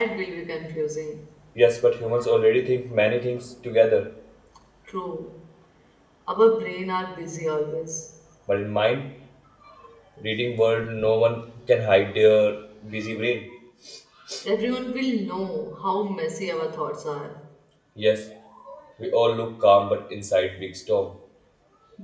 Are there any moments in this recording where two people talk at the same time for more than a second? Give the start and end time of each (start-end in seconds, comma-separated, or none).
none